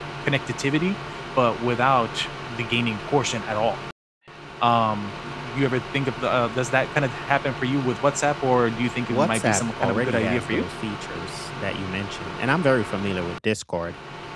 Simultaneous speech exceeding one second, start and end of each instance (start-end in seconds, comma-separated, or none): 9.1-10.6